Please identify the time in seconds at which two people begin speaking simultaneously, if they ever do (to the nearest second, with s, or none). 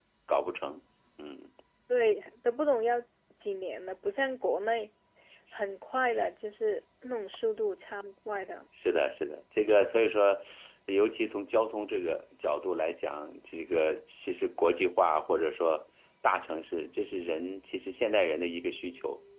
none